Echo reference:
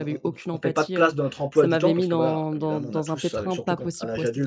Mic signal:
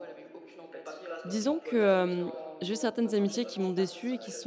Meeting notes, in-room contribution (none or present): present